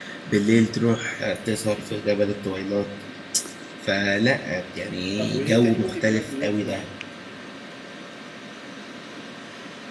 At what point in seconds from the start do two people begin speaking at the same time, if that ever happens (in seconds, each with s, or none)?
5.2 s